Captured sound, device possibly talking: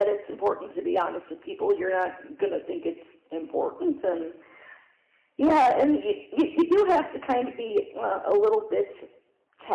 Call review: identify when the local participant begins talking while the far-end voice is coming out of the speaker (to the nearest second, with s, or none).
none